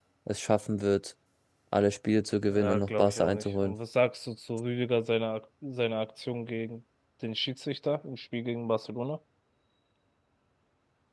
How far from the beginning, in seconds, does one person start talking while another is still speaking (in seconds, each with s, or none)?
2.5 s